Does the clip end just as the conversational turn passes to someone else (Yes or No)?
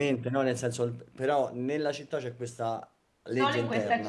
Yes